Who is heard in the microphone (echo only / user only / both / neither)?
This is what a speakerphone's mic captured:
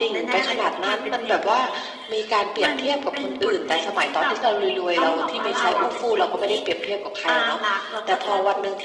echo only